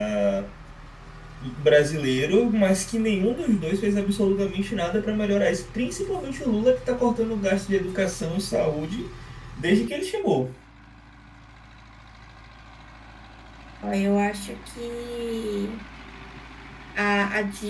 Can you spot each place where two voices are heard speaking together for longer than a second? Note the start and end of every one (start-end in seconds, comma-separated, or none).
none